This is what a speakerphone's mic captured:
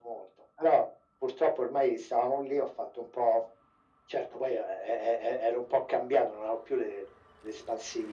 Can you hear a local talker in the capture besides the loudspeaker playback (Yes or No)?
No